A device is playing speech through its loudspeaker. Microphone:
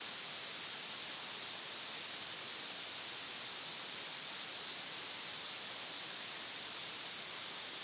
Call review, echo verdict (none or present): none